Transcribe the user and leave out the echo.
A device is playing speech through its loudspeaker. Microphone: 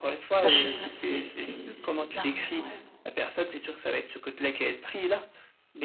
enfin, je sais pas, c'est c'est c'est bizarre, ouais.

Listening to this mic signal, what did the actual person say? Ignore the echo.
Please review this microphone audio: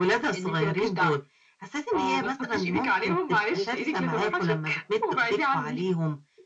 بيفتّحوا آه.

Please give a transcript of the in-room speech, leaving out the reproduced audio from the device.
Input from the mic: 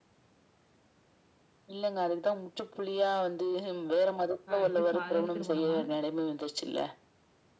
கா இது காதல் திருமணமா?

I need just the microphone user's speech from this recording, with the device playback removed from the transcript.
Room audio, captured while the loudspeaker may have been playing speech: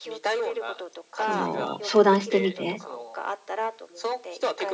その、相談してみて、

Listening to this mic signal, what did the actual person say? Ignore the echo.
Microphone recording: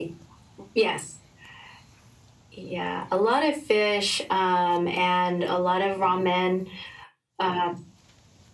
none

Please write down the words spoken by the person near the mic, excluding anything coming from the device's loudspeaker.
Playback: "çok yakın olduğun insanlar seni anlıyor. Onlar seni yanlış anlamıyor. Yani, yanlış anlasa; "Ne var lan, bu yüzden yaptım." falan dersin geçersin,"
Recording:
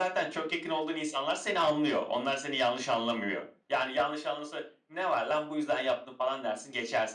none

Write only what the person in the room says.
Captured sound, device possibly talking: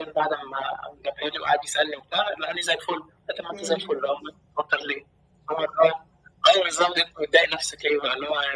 إمم.

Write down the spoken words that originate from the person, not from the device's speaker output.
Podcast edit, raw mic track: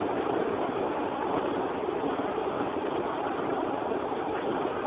none

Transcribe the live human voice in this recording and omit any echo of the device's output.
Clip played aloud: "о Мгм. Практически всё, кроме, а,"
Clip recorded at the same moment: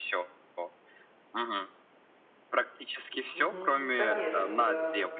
Мгм. Конечно, да.

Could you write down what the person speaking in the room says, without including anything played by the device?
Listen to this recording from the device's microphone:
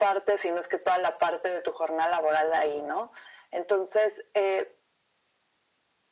none

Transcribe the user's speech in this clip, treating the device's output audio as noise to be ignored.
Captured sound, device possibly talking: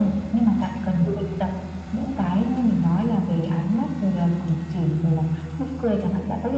none

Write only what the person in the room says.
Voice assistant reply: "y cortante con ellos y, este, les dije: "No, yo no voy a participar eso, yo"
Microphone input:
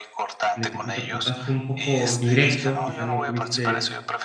en el que tú te portaste un poco directo, quizás no tuviste

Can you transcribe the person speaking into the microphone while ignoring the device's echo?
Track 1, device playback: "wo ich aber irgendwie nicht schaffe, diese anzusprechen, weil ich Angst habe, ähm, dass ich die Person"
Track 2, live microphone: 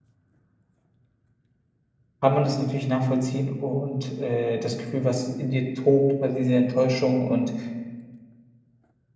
kann man das natürlich nachvollziehen und, äh, das Gefühl, was in dir tobt, war diese Enttäuschung und,

